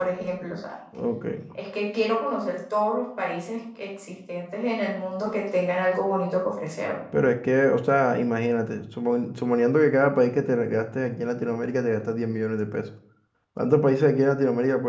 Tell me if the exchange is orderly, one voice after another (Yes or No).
Yes